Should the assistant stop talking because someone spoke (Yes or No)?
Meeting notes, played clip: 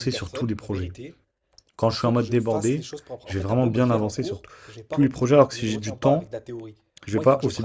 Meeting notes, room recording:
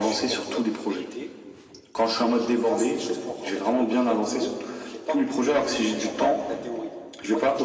No